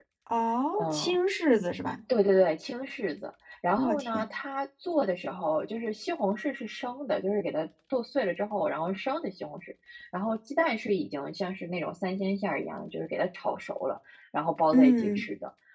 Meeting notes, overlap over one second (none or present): none